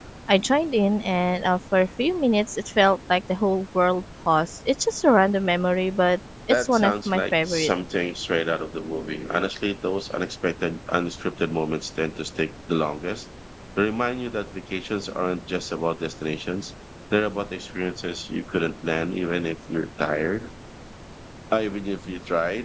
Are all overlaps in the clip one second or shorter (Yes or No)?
No